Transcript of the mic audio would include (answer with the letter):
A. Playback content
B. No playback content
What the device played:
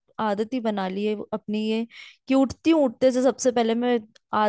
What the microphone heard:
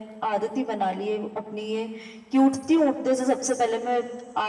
A